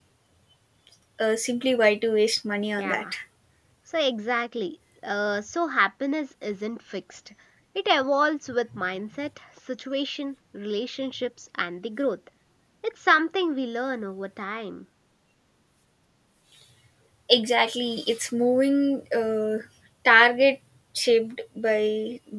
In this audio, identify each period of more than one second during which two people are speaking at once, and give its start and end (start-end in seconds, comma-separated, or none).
none